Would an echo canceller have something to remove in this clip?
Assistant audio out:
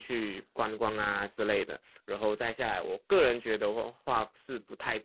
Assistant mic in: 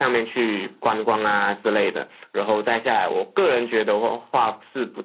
Yes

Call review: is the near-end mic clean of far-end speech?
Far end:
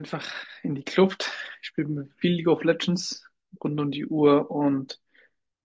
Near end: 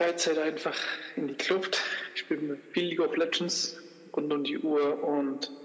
No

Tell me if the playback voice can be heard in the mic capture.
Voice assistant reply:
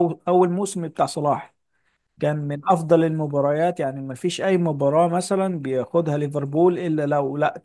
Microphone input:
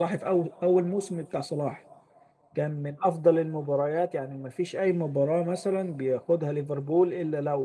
Yes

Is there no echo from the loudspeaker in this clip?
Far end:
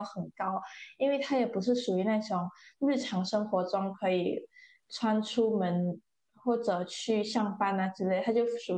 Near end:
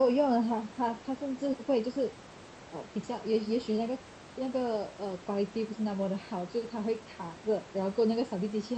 Yes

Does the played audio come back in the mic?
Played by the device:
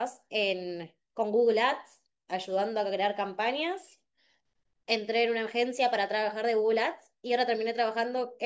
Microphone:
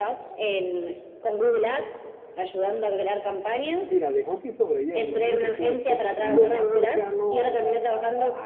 Yes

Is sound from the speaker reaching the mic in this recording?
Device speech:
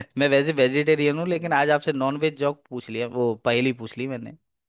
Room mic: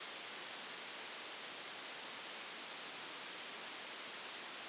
No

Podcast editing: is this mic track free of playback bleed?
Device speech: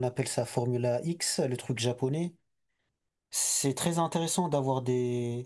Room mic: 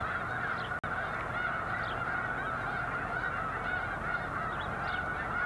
Yes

